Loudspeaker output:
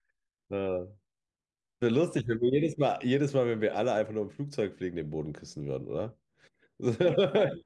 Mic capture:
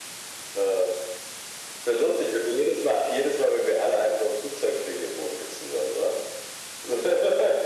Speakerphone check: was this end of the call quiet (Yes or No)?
Yes